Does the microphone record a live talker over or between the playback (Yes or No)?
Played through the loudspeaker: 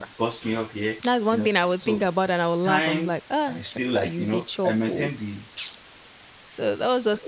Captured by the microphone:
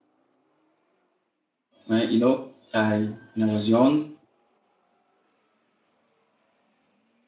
Yes